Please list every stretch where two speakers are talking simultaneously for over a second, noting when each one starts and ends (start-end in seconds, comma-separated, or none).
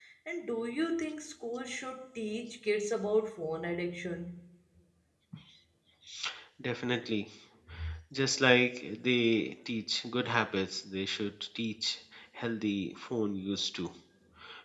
none